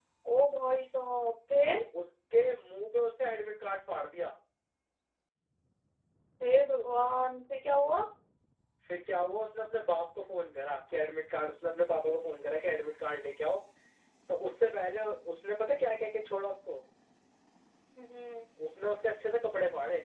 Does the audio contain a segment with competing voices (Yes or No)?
No